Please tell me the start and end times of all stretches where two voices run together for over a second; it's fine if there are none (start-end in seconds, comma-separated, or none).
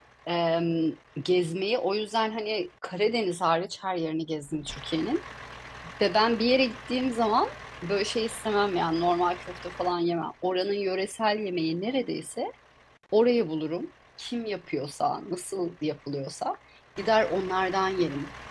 none